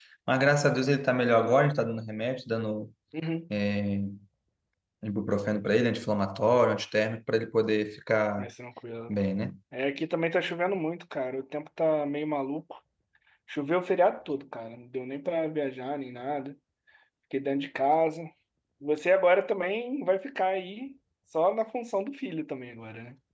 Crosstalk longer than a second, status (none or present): none